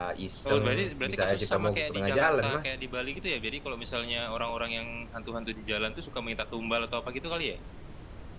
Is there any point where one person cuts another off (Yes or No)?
Yes